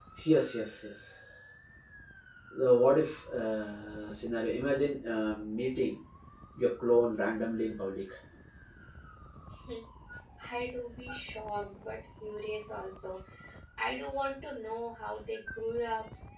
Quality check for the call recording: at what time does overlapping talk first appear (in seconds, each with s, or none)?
none